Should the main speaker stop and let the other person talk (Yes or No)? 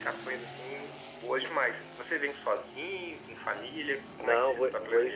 Yes